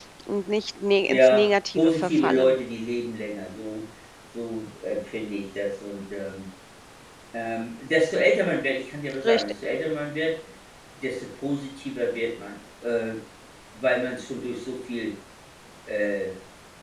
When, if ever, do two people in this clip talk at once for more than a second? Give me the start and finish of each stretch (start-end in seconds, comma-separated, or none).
1.1-2.5